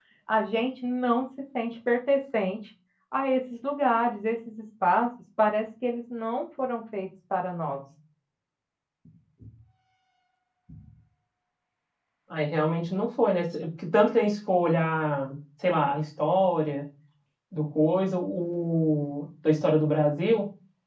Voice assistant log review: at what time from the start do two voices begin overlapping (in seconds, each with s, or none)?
none